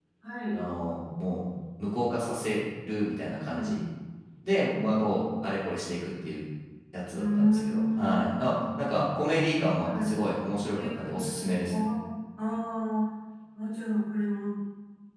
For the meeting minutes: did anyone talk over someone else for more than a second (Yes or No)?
Yes